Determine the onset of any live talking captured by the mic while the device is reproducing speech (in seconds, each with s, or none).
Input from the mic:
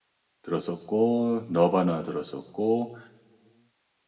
0.4 s